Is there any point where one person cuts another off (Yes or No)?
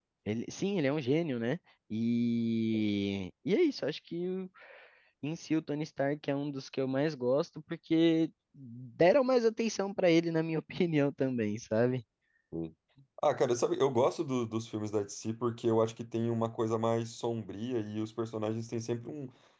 No